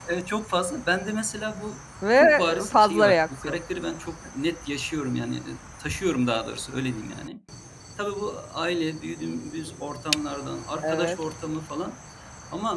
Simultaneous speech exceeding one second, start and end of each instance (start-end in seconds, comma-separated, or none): 2.1-3.6